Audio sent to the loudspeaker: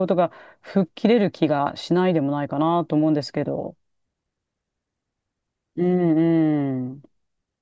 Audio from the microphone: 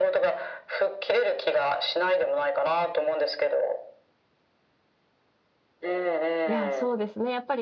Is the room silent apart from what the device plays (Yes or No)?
No